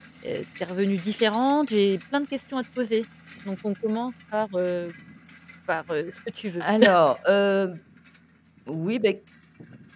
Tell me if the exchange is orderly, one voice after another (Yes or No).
Yes